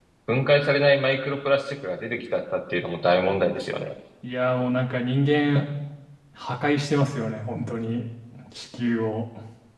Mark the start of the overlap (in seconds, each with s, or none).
none